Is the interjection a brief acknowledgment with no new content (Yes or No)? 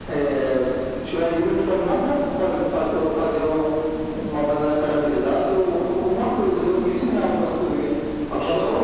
No